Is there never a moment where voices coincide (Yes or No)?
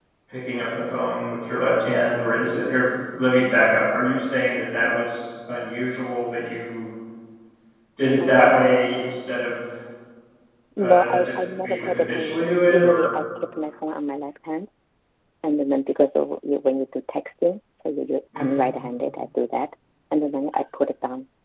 No